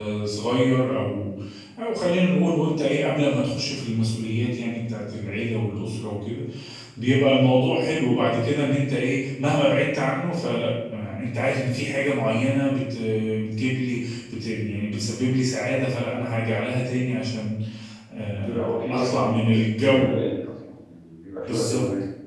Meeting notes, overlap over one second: present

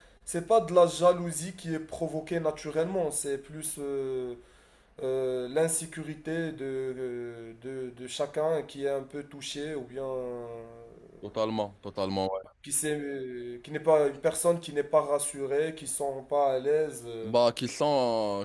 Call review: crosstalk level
none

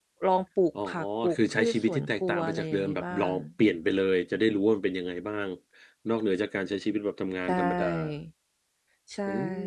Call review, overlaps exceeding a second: present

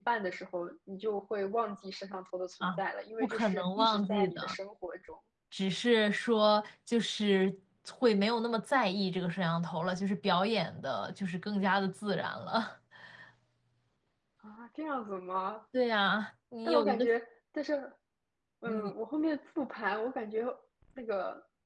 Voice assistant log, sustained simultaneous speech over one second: present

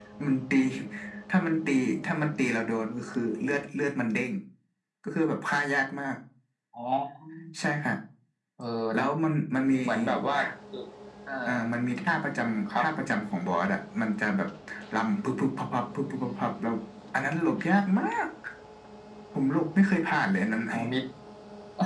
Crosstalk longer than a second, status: none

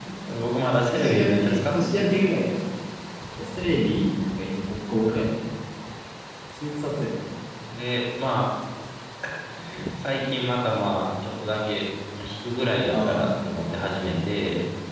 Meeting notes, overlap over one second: present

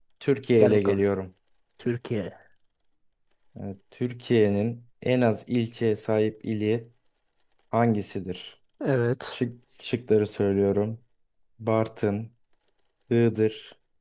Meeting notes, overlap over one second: none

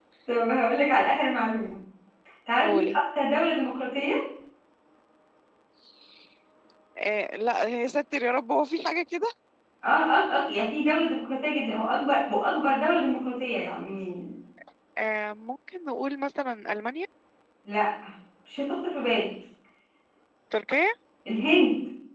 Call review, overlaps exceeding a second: none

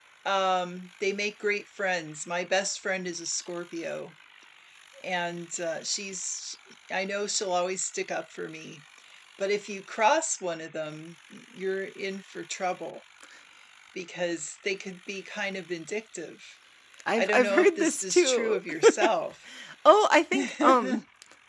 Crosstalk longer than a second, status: present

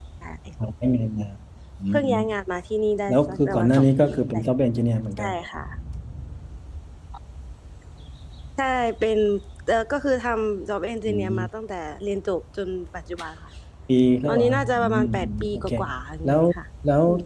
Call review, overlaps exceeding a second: present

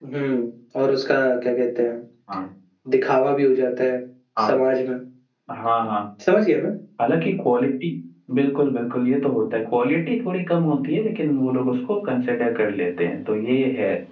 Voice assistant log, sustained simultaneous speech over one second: none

